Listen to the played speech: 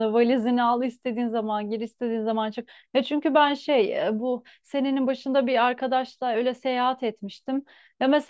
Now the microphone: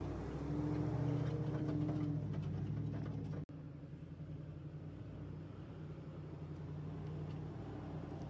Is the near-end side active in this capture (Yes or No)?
No